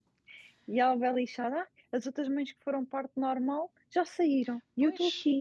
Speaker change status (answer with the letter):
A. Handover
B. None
A